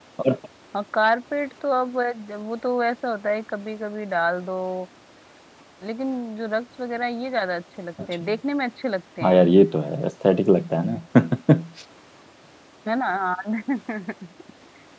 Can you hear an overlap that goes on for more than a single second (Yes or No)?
No